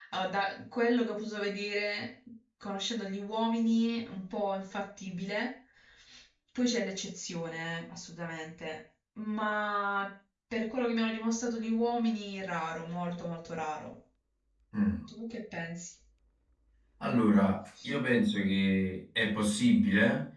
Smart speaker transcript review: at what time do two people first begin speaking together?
none

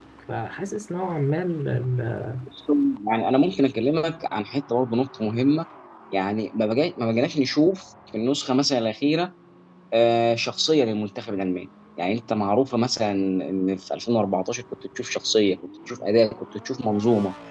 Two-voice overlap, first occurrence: none

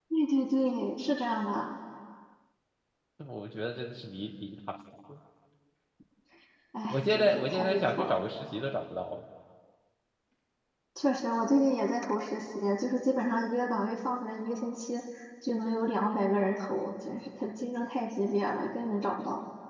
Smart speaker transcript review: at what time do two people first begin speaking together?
6.9 s

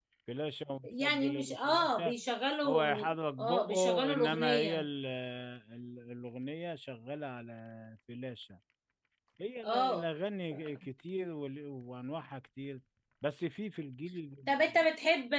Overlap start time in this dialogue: 0.8 s

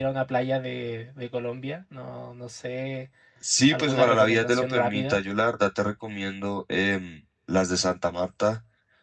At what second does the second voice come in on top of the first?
3.7 s

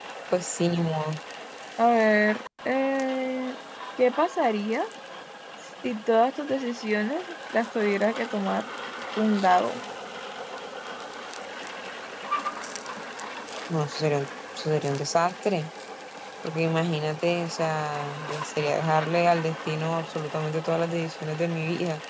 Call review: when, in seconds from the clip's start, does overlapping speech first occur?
none

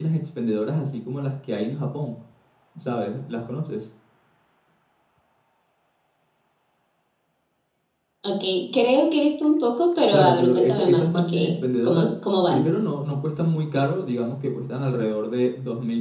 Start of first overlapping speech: 10.1 s

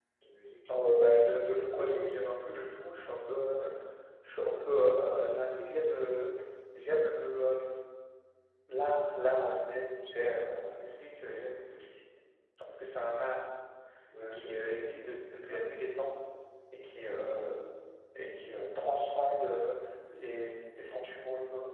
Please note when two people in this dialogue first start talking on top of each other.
1.3 s

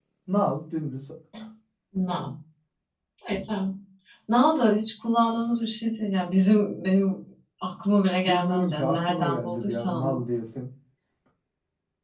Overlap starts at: 8.2 s

